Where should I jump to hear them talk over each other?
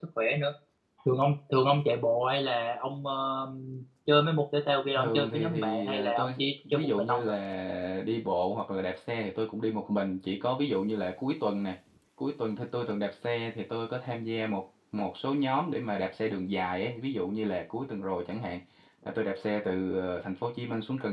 5 s

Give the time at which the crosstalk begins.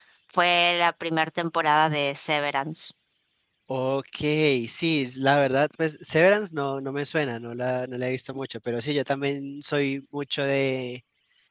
none

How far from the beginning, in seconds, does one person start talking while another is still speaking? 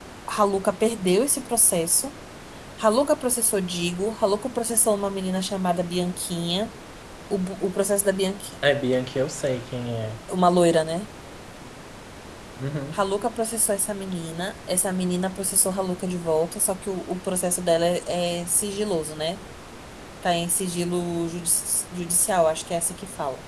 none

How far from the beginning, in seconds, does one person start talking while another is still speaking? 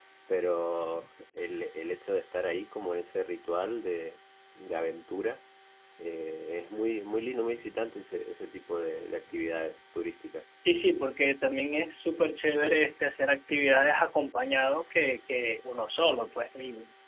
none

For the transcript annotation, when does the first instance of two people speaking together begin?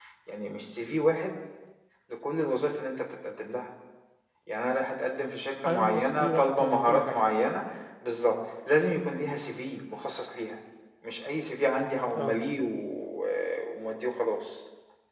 6 s

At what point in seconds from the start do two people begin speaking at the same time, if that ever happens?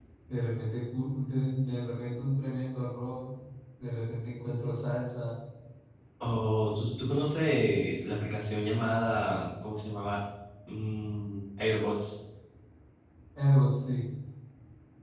none

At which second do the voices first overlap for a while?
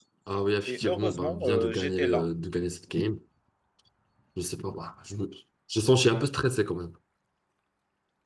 1 s

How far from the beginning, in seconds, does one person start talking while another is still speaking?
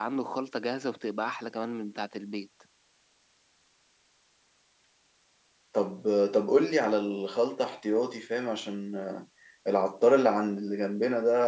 none

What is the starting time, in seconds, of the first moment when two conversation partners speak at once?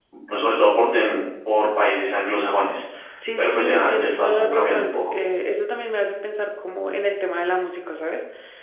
3 s

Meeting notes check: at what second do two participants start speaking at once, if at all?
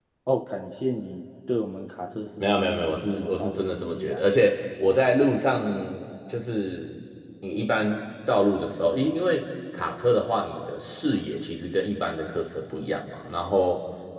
2 s

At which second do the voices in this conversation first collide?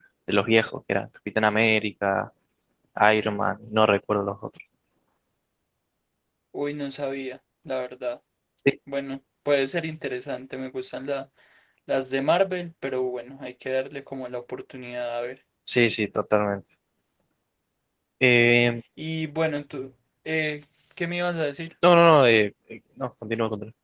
none

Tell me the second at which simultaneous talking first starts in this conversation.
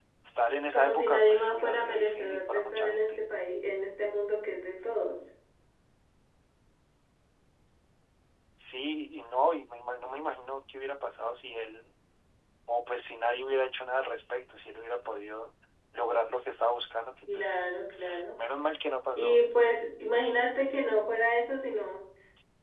1 s

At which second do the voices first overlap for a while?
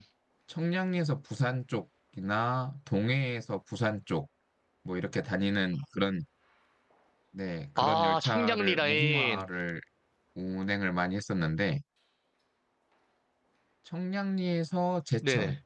8 s

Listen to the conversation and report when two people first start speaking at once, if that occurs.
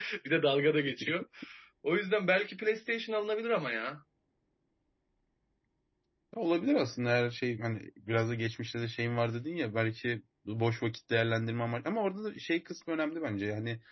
none

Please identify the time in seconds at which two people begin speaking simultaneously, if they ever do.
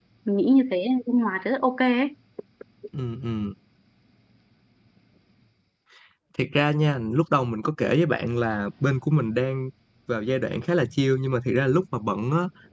none

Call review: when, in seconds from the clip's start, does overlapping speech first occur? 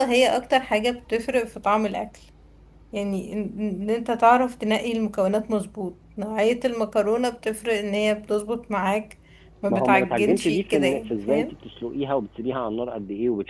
10 s

